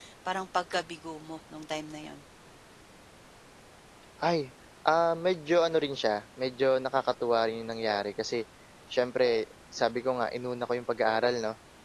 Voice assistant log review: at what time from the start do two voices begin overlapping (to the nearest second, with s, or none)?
none